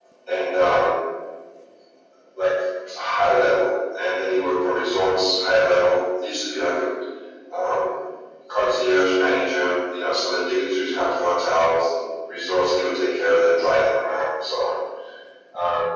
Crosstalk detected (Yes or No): No